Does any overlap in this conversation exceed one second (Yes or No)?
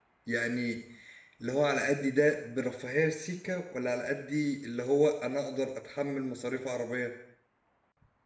No